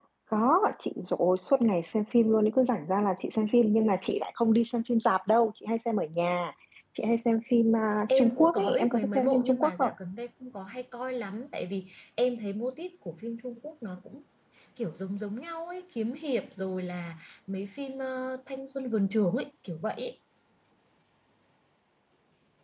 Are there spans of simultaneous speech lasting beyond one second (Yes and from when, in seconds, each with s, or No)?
Yes, from 8.1 s